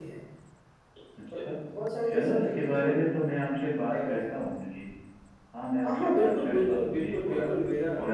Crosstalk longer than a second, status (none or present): present